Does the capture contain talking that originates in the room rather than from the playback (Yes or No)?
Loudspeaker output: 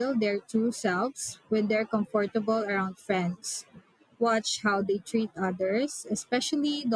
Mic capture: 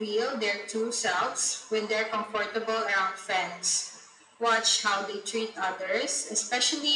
No